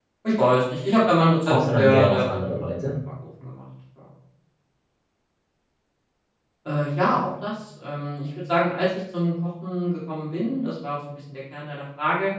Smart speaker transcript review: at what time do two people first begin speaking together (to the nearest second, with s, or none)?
1 s